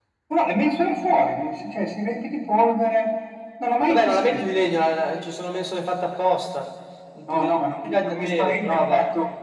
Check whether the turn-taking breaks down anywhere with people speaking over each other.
Yes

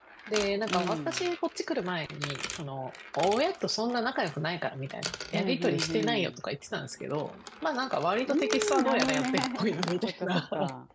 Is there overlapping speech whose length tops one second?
Yes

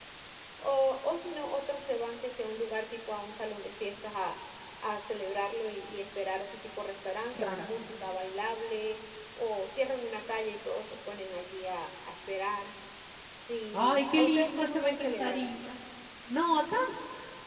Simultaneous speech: Yes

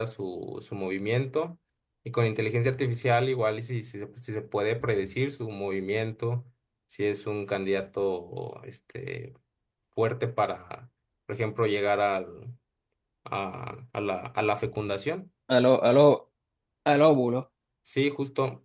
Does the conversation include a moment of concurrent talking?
No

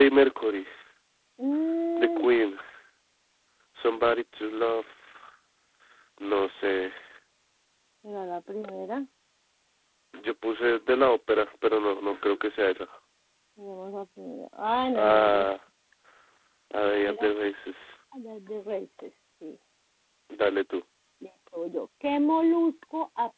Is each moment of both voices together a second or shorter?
Yes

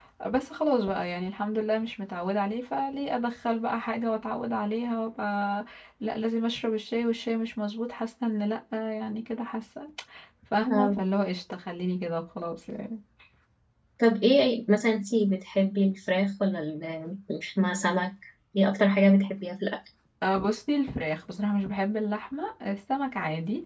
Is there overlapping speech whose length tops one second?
No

